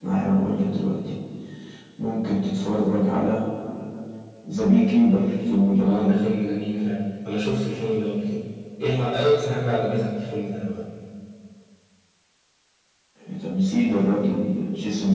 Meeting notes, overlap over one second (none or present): none